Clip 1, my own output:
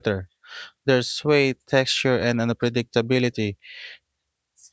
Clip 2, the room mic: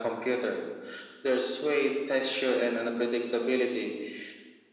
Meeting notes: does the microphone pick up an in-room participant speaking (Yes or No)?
No